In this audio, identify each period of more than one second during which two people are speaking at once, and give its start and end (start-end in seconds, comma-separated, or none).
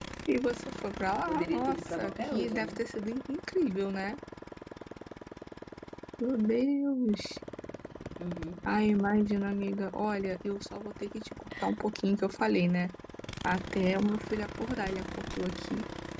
1.3-2.7